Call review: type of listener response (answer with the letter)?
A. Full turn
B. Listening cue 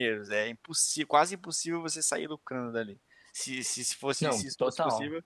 B